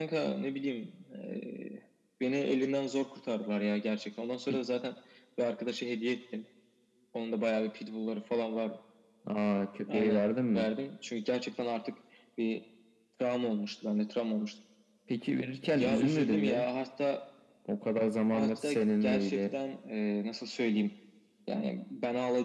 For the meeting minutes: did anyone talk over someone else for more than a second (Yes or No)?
Yes